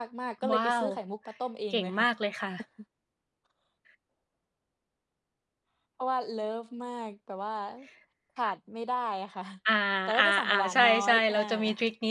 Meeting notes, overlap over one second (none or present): present